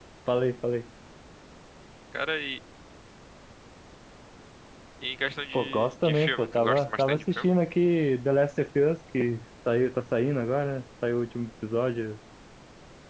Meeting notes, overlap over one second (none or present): present